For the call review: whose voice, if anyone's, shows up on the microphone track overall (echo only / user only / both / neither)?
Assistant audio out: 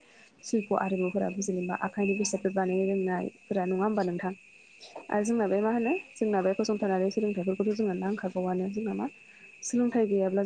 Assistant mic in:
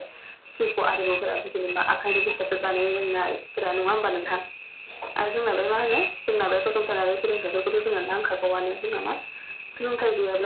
echo only